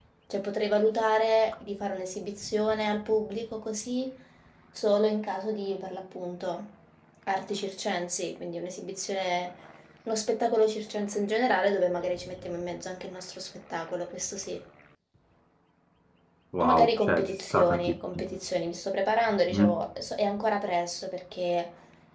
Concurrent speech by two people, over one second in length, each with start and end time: 16.6-18.2

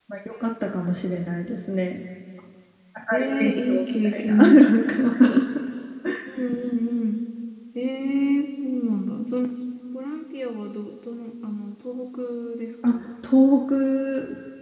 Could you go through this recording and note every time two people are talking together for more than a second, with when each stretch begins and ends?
3.1-5.0

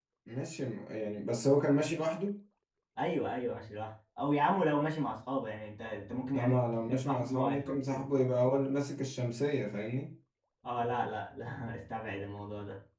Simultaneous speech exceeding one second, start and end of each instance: 6.3-7.8

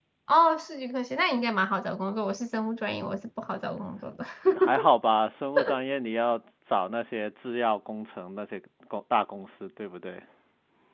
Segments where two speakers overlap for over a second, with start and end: none

